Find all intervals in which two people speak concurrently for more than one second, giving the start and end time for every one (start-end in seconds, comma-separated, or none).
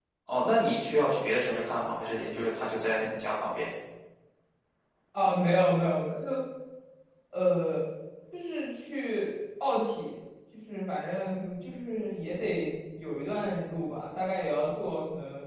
none